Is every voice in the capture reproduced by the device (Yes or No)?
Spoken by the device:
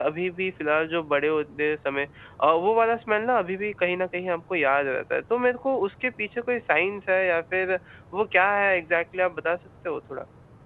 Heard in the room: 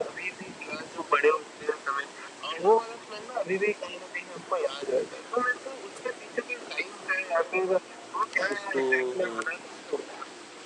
No